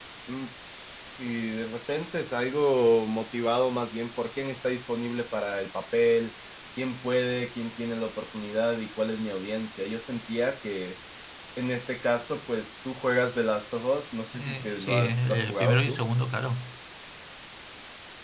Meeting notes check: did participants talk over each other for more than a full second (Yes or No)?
Yes